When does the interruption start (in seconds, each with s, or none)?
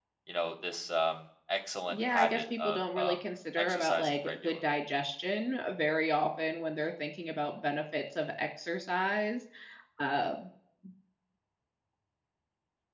1.9 s